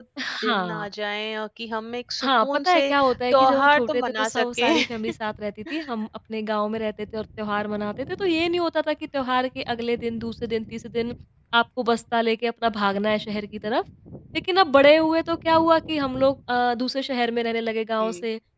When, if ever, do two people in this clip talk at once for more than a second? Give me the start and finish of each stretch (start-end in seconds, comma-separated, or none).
2.2-4.8